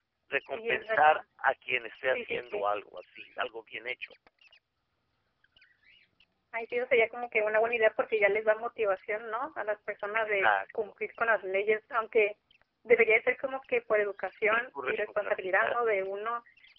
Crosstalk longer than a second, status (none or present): present